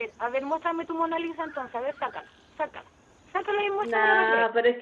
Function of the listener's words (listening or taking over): taking over